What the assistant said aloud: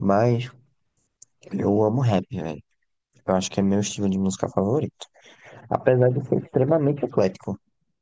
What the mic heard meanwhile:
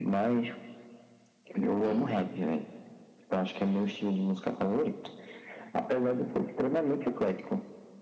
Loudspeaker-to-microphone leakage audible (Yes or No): Yes